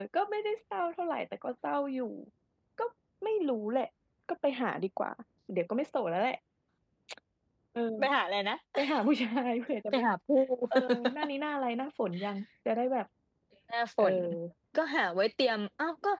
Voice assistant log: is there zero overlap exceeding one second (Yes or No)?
Yes